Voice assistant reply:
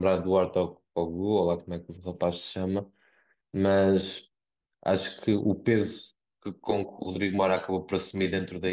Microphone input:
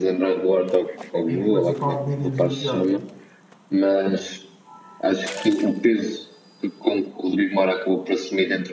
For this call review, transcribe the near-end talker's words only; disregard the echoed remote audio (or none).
e depois o Paulo Díaz e o Gyökeres.